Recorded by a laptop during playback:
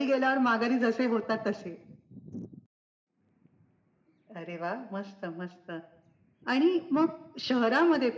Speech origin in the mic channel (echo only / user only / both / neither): echo only